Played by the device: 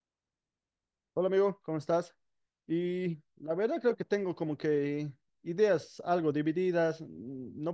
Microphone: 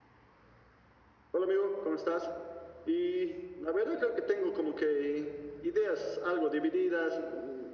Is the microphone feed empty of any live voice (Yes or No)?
Yes